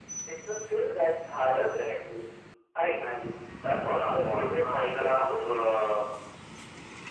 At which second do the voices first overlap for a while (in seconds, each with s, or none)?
3.6 s